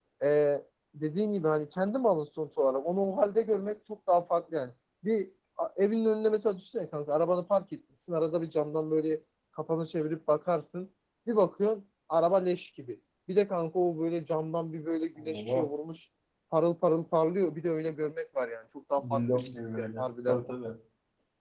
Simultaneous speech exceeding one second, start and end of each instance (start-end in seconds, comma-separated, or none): 19.1-20.4